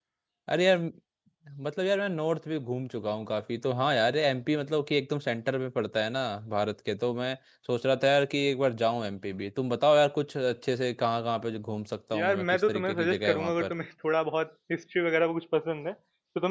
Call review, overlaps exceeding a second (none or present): present